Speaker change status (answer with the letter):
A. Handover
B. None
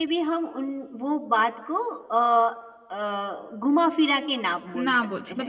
A